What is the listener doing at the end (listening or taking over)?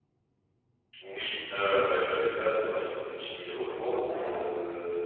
listening